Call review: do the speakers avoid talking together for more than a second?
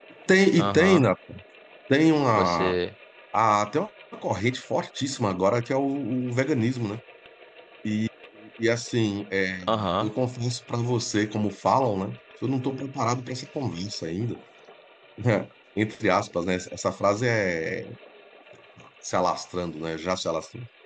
Yes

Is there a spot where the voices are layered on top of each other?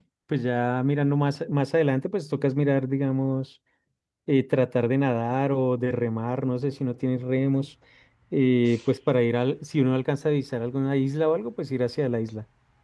No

